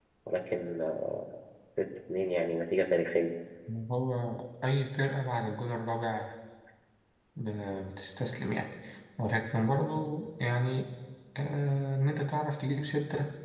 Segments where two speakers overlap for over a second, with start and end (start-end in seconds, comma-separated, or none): none